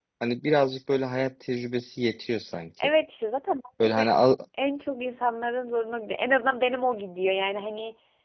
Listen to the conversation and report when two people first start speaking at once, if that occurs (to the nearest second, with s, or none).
none